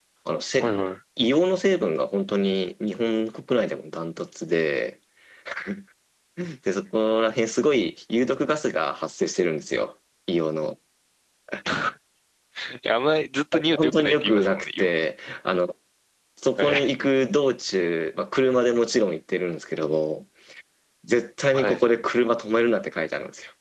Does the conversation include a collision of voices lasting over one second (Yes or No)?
Yes